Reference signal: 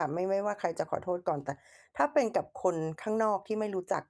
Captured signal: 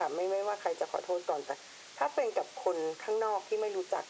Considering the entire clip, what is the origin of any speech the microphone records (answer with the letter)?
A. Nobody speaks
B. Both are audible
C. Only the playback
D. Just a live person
C